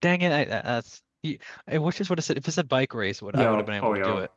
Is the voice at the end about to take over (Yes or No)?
Yes